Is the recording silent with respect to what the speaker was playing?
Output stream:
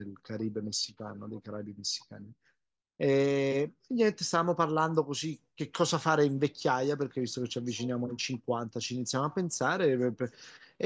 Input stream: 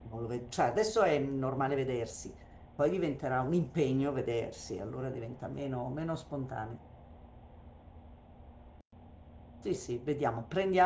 Yes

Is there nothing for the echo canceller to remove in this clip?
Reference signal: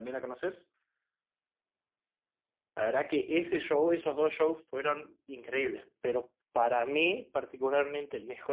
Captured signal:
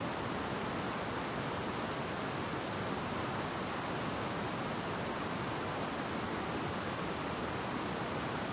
Yes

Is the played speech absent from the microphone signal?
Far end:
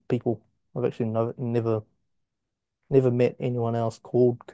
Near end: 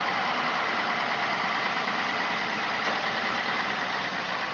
Yes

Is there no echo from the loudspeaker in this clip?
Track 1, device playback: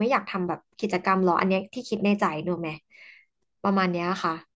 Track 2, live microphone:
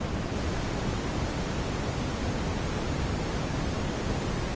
Yes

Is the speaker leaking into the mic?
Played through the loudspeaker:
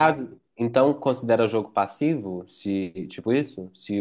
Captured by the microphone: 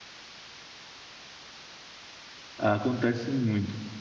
No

